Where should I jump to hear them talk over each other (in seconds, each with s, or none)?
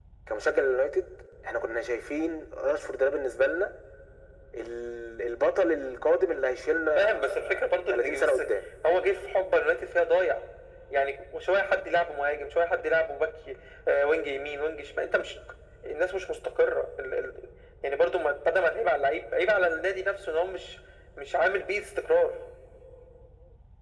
7.0 s